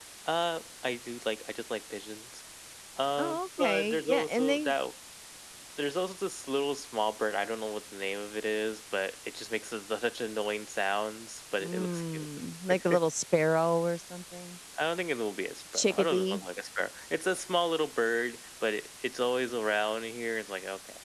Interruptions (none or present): present